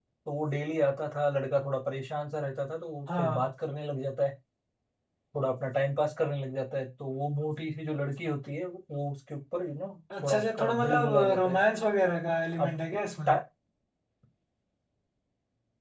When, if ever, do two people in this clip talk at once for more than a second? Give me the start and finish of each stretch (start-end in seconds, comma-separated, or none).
10.2-11.6